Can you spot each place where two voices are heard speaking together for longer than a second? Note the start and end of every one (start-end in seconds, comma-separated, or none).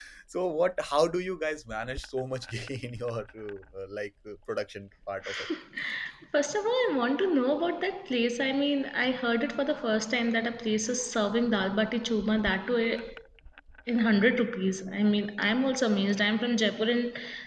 none